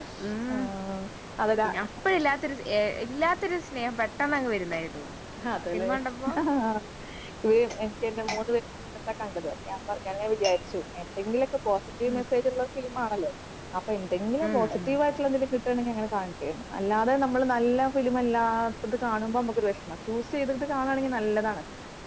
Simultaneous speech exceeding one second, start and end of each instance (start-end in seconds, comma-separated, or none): none